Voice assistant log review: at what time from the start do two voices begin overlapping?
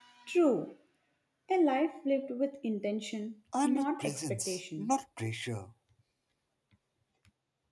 4 s

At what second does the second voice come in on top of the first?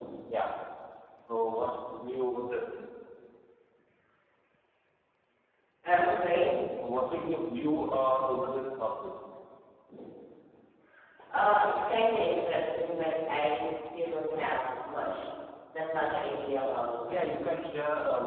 none

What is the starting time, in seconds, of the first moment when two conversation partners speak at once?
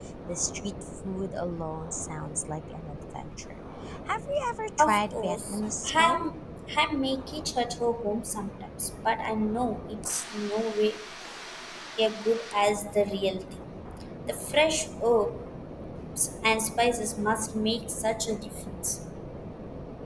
5 s

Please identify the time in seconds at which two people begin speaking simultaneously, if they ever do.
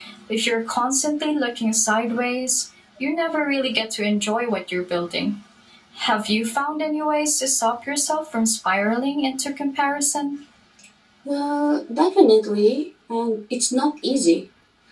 none

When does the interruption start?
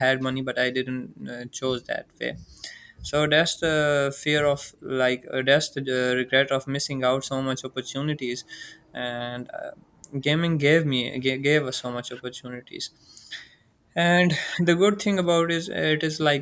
none

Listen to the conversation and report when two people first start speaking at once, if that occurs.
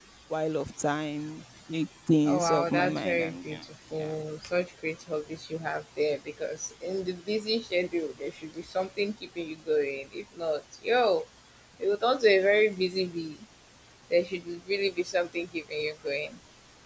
2 s

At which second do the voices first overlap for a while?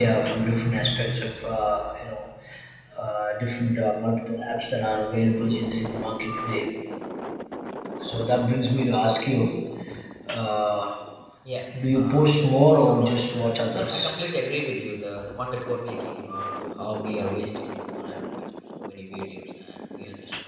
12 s

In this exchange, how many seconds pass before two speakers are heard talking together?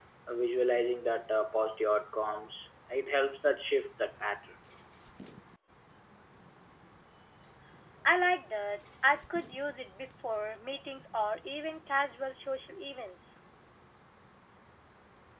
none

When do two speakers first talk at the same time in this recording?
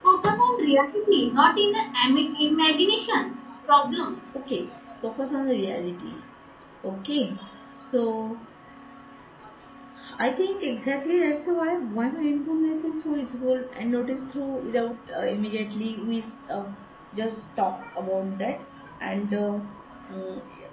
none

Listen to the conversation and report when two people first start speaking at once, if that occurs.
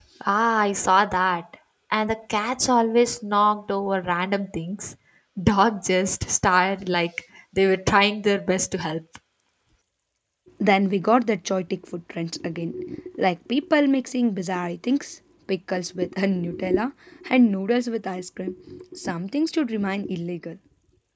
none

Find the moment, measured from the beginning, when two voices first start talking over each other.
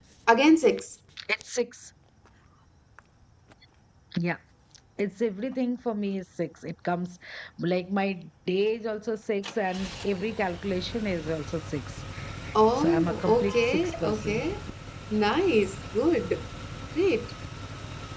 13 s

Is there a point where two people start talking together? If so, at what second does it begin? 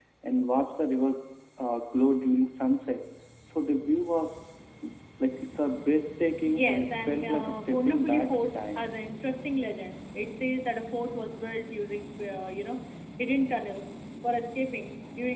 6 s

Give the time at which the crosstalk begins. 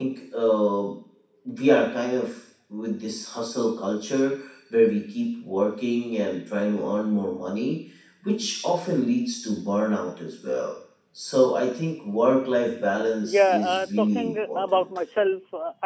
13 s

